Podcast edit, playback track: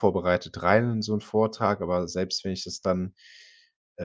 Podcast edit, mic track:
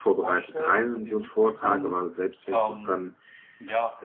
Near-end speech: present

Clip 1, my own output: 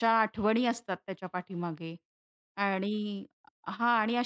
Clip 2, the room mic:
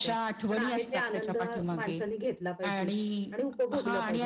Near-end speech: present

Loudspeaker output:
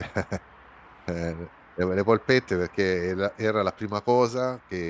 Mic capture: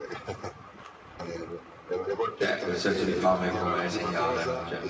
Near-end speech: present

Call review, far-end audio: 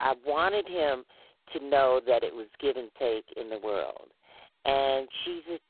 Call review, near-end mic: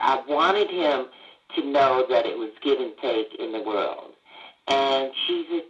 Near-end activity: none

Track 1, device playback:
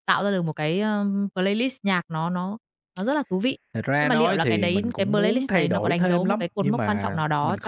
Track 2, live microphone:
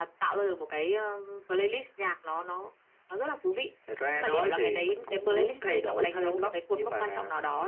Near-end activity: none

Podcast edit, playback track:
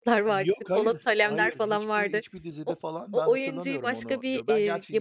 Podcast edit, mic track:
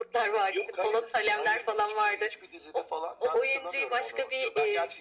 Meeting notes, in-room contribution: none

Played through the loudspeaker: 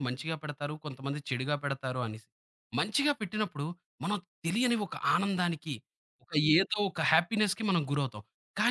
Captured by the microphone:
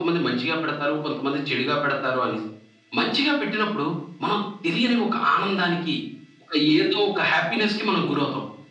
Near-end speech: none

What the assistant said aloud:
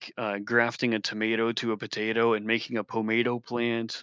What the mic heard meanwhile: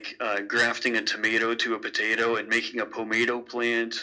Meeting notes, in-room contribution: none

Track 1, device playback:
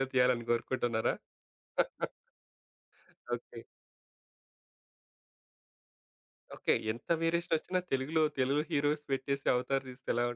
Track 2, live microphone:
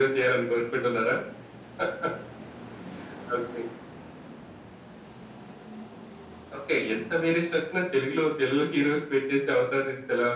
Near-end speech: none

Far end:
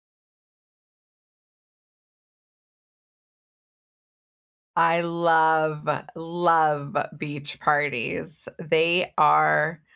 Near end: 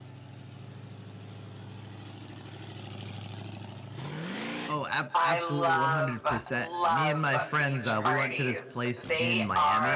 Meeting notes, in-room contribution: present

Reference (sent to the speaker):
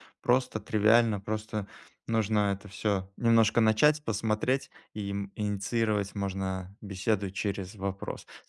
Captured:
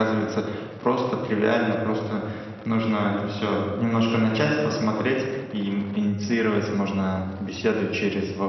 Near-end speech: none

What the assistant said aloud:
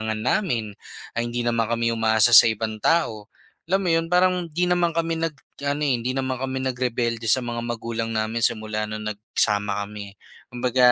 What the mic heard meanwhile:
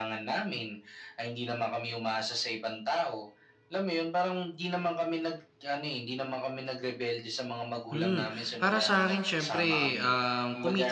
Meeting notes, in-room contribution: present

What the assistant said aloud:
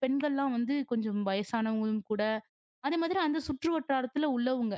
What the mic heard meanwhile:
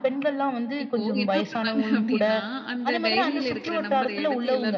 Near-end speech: present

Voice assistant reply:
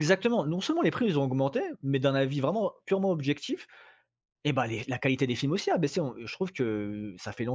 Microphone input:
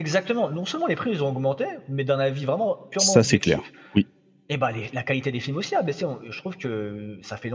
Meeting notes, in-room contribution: present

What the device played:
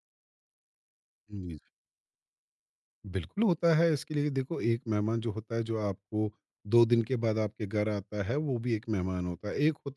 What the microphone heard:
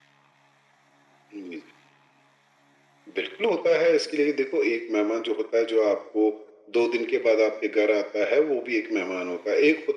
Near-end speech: none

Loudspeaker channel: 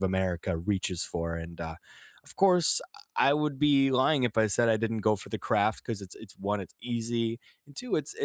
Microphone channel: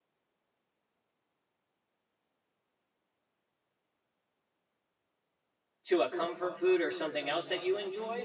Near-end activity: present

